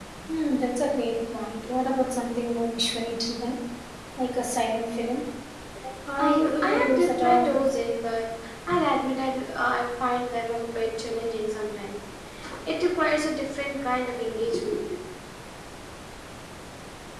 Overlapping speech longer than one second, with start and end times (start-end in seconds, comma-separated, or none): 6.2-7.5